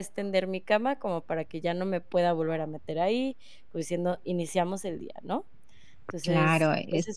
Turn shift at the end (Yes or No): Yes